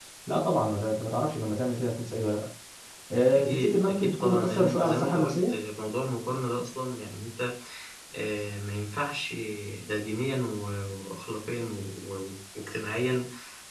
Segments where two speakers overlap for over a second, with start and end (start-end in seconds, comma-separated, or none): 3.3-5.5